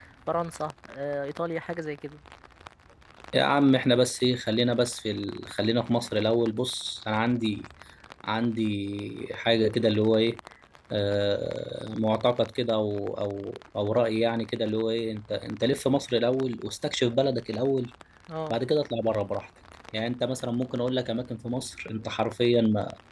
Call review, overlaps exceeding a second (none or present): none